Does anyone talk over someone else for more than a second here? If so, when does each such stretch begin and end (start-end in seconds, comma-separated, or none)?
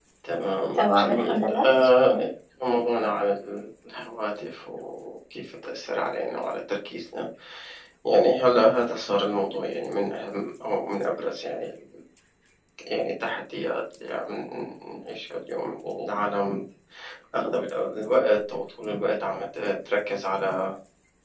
0.7-2.2